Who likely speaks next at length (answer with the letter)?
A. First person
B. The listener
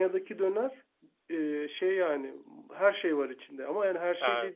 A